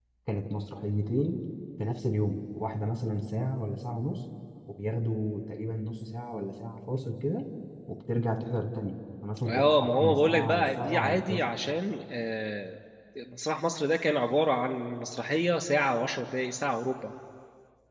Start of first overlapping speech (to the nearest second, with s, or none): 9 s